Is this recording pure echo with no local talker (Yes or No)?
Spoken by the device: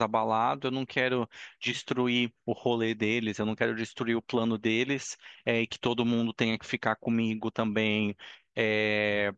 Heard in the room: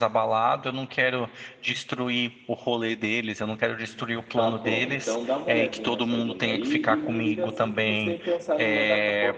No